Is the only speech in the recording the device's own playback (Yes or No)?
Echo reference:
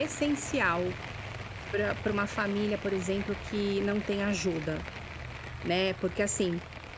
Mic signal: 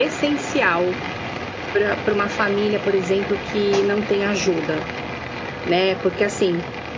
Yes